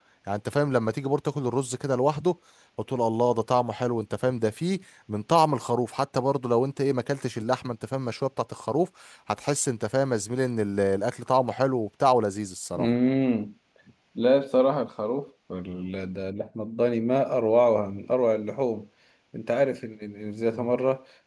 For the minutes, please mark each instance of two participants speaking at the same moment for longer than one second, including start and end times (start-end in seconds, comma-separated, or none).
none